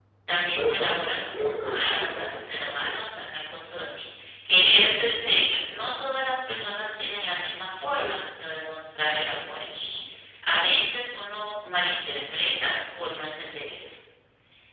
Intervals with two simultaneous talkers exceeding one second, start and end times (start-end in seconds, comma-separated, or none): 0.5-2.8